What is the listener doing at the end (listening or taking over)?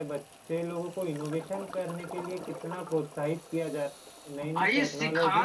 taking over